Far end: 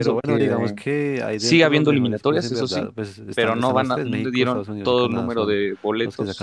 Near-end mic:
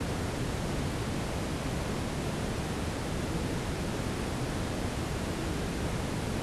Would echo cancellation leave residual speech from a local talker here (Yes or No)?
No